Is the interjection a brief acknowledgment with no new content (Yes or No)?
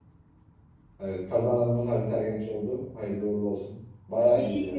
No